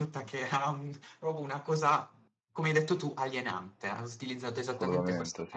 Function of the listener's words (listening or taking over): listening